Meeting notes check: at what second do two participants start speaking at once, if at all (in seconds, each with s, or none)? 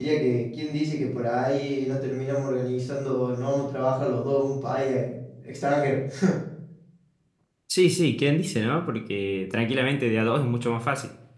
none